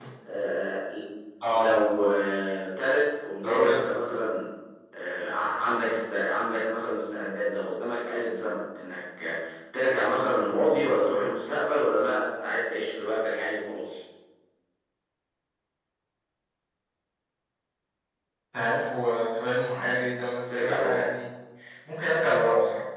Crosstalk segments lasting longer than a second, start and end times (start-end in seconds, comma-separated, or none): none